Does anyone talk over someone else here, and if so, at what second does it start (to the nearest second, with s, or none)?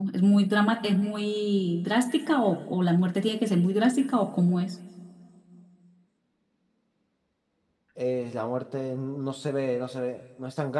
none